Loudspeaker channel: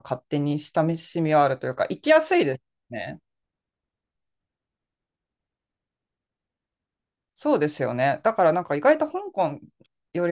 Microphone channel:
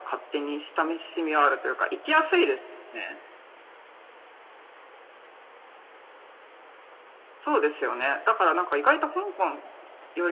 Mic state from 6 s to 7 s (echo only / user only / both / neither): neither